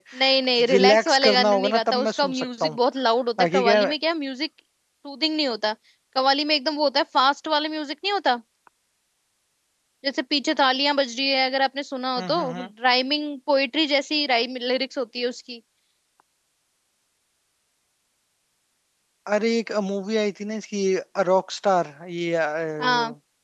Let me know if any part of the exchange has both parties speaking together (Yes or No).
Yes